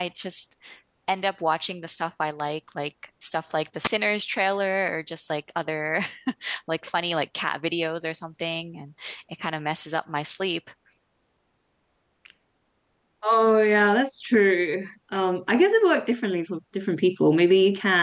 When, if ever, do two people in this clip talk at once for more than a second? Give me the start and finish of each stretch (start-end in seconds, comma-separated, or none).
none